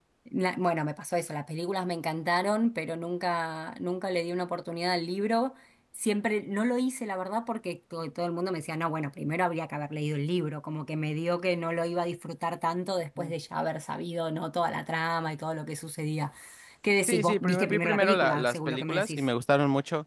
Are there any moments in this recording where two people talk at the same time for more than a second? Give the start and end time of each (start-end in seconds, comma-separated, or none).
17.1-19.3